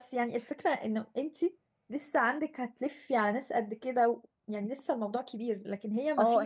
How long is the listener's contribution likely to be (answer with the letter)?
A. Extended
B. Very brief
A